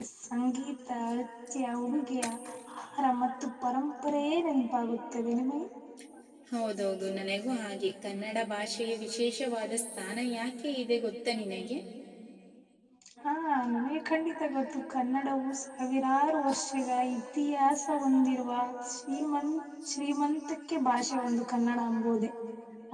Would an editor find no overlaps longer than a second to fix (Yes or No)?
Yes